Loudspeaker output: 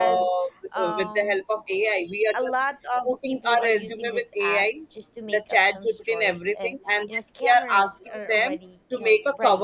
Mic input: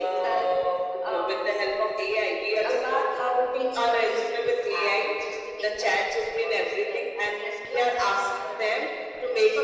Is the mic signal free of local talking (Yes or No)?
Yes